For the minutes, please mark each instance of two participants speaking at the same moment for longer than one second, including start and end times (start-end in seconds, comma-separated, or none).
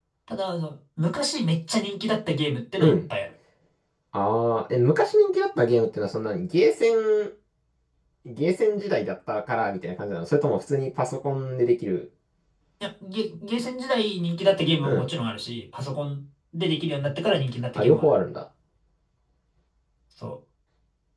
none